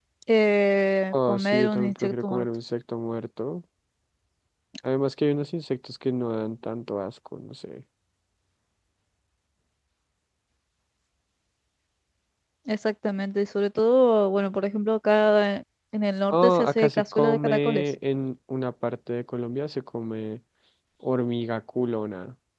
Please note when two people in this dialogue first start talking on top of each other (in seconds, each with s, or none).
1.1 s